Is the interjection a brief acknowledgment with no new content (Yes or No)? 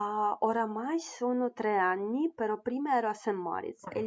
Yes